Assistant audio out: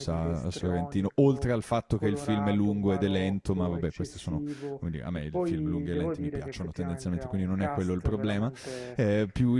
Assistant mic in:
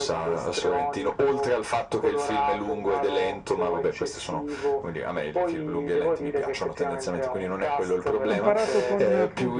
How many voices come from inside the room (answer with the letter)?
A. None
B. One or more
B